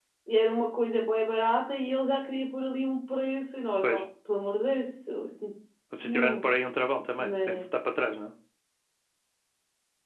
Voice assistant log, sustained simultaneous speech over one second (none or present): none